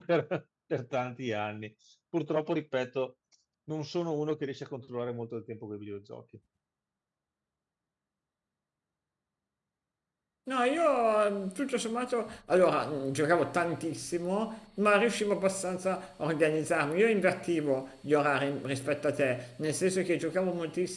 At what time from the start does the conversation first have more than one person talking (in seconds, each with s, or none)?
none